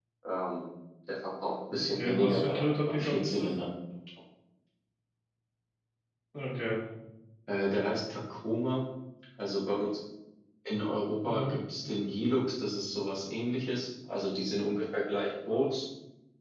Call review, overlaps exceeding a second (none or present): present